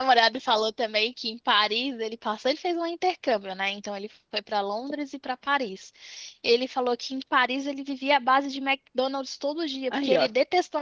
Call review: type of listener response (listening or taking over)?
listening